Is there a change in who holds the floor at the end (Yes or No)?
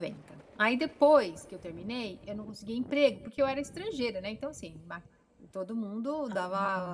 No